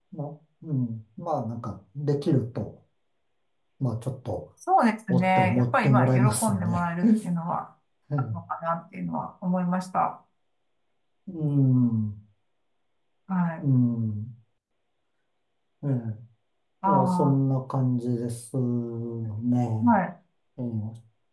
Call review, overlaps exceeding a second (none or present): present